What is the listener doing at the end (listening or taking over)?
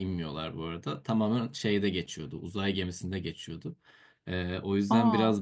listening